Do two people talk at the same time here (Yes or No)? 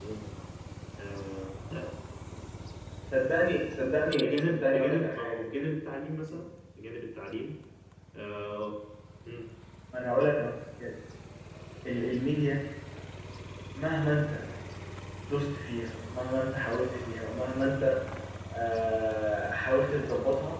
Yes